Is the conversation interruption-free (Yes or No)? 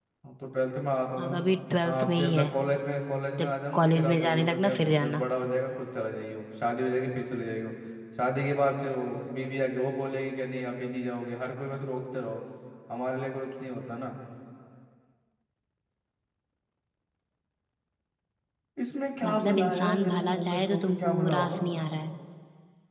No